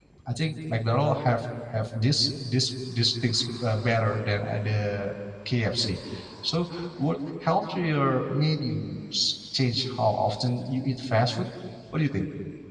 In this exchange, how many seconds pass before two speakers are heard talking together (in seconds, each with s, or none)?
none